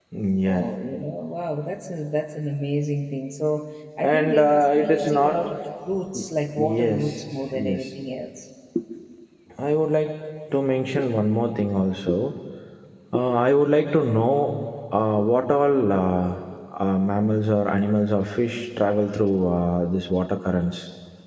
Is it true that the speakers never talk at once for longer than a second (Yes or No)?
No